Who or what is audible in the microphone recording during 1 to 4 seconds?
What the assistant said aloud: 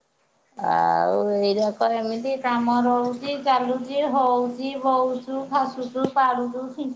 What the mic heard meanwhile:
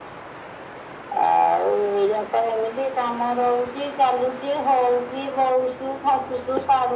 echo only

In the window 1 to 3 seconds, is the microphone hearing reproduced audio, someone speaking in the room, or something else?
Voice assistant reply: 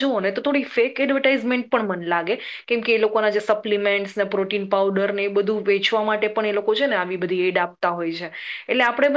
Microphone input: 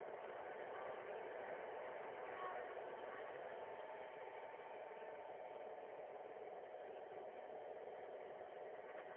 neither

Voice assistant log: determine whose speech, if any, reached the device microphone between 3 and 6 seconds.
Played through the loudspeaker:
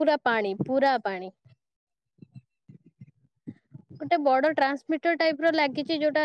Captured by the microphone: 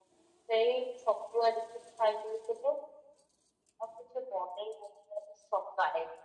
user only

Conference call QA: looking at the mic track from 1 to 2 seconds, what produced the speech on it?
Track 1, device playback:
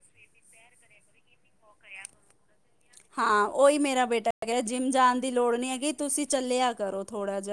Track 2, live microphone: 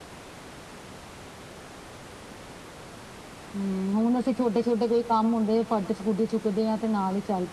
neither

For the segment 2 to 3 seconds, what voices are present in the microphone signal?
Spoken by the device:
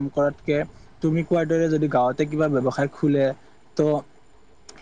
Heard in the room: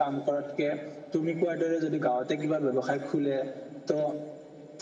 echo only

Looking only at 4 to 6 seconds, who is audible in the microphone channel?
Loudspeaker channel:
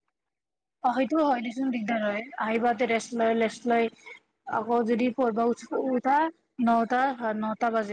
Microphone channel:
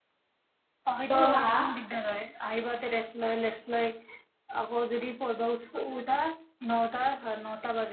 echo only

